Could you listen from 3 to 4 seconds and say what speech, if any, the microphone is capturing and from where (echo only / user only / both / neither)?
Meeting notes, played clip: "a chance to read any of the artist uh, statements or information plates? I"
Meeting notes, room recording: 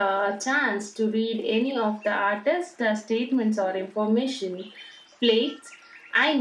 echo only